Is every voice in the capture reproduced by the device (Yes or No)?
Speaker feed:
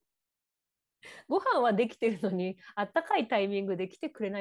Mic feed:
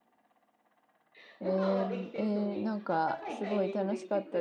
No